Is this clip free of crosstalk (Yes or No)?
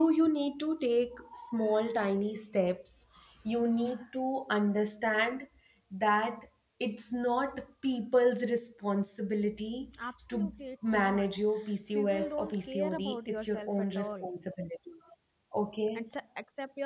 No